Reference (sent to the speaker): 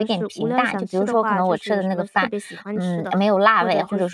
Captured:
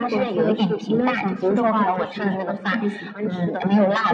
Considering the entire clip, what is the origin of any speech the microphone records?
echo only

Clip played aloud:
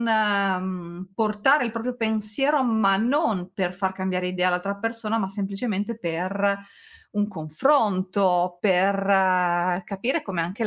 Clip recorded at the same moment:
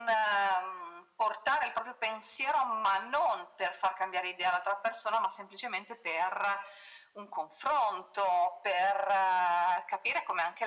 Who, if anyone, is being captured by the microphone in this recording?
echo only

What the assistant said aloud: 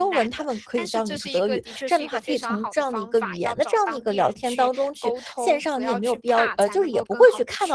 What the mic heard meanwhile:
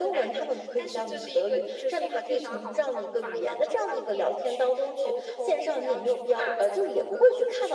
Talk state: echo only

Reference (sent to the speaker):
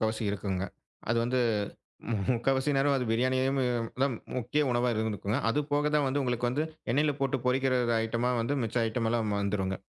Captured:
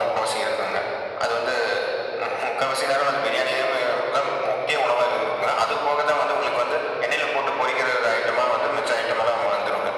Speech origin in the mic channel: echo only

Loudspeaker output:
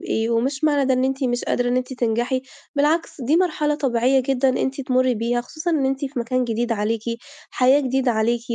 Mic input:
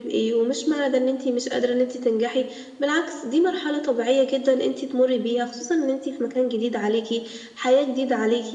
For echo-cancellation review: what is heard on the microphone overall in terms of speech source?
echo only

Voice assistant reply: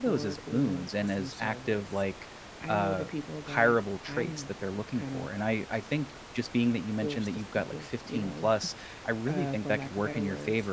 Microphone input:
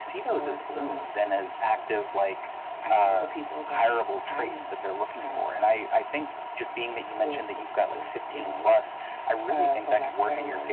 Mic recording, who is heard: echo only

